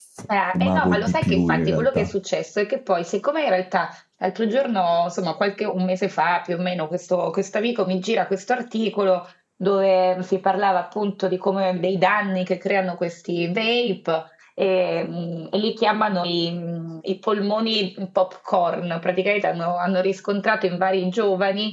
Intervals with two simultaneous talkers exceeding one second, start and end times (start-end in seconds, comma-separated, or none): 0.6-2.0